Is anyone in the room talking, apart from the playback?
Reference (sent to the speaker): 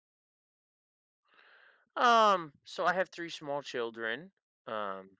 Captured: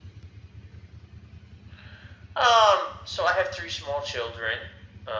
No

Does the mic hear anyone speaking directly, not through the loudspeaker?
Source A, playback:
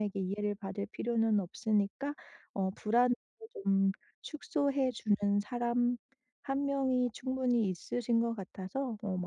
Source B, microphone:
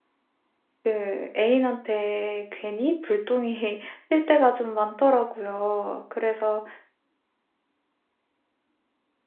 Yes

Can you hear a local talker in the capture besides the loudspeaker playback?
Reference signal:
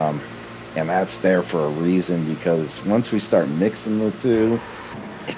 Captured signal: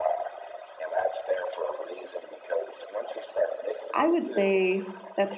Yes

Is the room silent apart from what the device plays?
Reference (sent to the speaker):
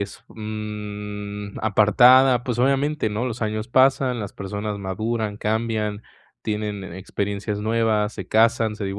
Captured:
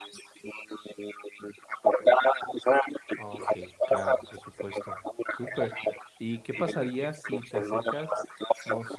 No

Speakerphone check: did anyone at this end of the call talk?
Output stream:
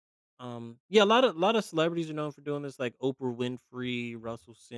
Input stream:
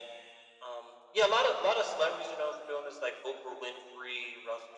No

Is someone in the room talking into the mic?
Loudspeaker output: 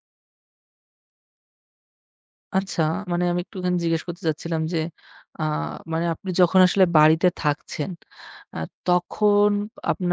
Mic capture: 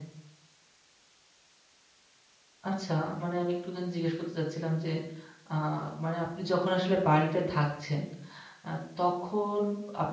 No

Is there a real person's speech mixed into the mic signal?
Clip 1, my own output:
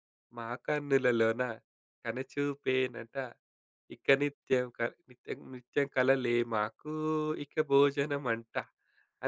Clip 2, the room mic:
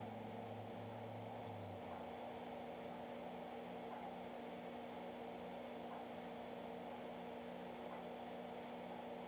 No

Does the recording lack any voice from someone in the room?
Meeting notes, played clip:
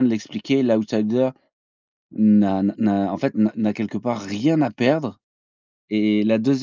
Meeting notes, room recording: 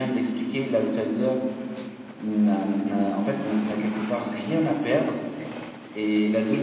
Yes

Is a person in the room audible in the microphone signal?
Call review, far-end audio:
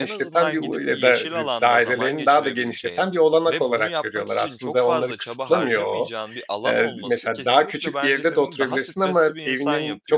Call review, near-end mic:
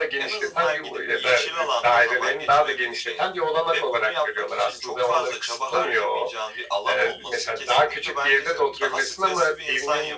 No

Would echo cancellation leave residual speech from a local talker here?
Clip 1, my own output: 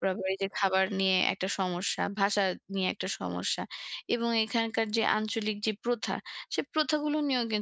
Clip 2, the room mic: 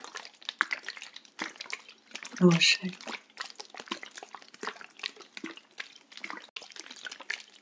Yes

